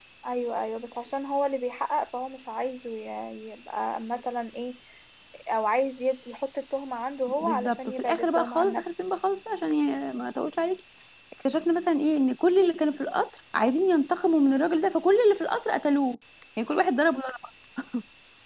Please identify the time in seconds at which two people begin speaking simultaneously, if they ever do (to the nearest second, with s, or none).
7 s